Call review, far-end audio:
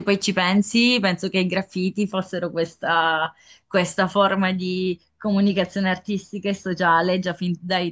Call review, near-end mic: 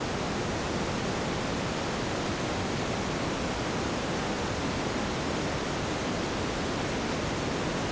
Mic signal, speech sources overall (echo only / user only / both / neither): neither